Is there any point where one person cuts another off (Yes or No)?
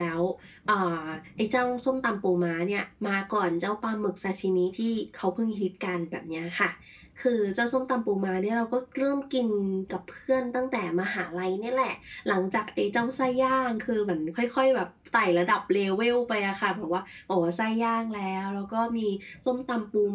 No